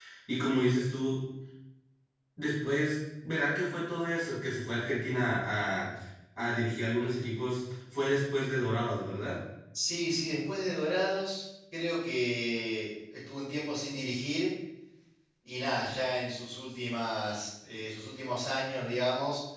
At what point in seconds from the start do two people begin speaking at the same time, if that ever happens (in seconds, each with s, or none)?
none